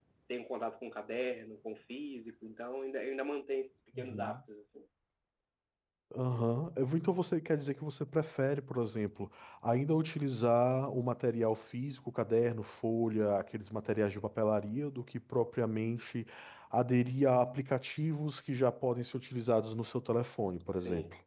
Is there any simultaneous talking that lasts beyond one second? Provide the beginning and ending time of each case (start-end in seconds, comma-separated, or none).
none